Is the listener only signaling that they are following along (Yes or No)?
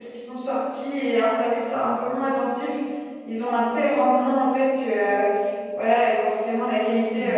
Yes